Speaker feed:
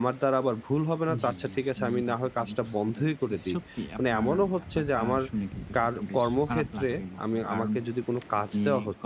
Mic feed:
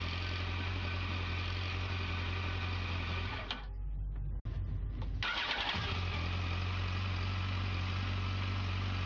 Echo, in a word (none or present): none